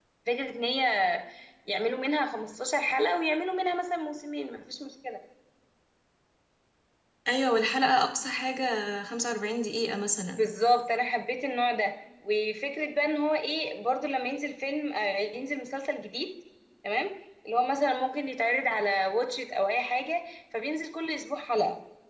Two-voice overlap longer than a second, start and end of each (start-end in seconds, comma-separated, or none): none